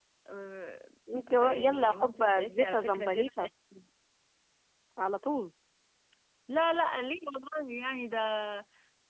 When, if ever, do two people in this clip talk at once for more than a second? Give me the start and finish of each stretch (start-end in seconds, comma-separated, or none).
1.4-3.5